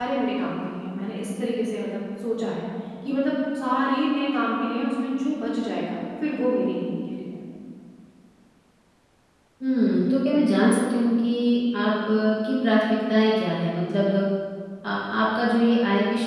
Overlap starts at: none

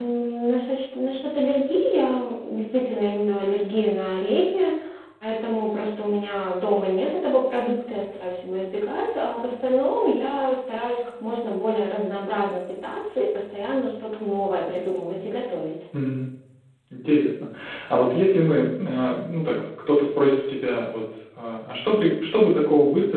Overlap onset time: none

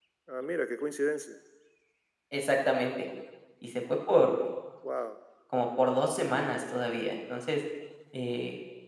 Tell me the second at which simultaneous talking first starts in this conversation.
none

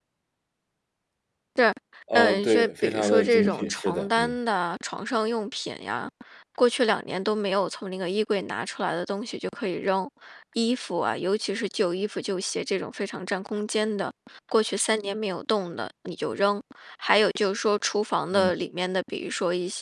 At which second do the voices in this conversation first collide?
2.2 s

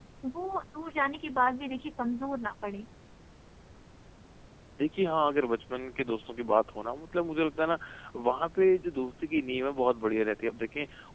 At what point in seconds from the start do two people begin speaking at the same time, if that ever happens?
none

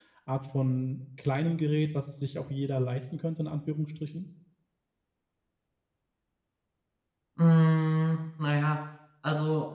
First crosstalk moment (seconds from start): none

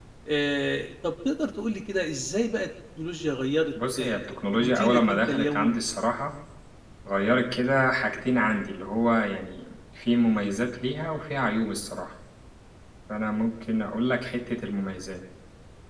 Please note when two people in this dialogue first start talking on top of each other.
3.8 s

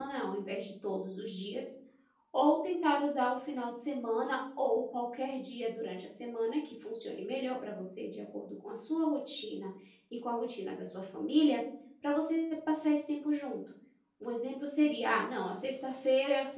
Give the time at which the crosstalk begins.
none

